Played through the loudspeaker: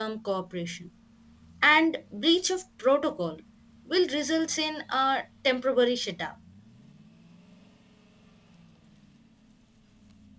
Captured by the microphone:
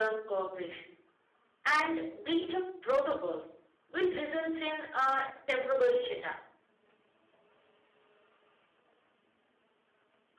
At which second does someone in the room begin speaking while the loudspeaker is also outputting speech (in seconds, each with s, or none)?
none